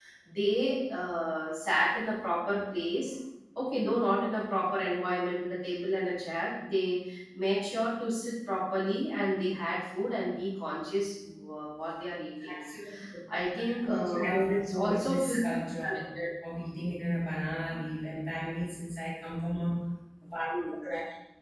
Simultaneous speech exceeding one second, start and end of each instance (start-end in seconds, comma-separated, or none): 13.6-15.4